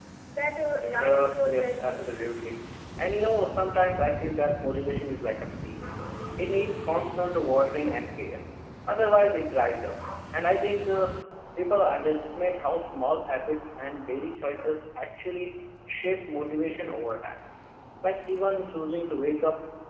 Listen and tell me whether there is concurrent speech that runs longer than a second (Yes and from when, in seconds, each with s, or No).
Yes, from 0.9 s